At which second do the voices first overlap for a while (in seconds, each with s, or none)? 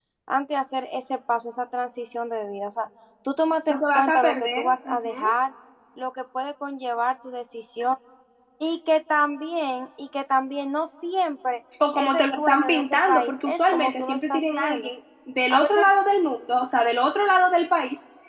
3.7 s